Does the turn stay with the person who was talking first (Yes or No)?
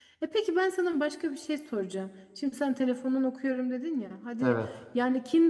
Yes